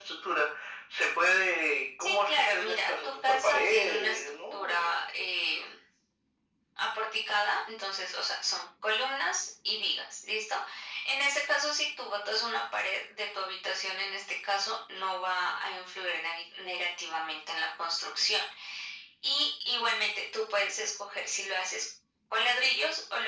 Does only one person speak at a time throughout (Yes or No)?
No